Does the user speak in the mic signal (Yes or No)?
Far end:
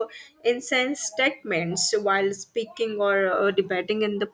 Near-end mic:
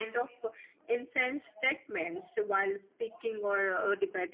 No